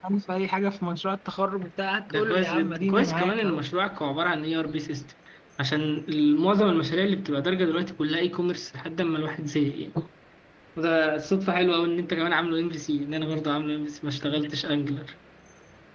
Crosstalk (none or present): present